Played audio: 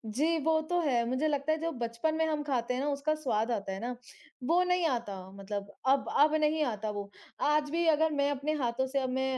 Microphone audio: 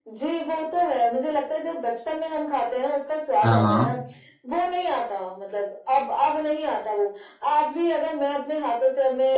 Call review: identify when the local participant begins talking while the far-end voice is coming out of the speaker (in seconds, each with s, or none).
3.4 s